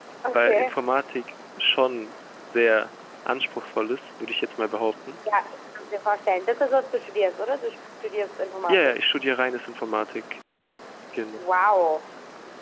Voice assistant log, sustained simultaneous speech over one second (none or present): none